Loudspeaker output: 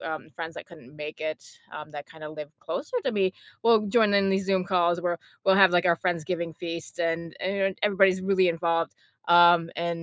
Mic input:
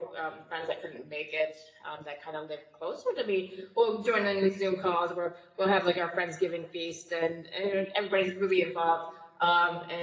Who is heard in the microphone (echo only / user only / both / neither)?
echo only